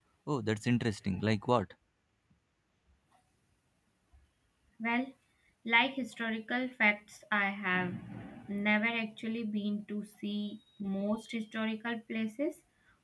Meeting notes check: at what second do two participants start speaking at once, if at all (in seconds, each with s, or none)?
none